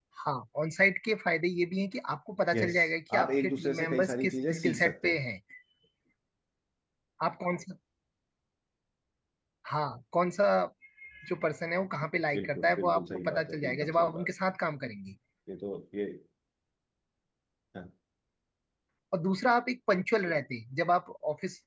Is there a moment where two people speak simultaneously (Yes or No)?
Yes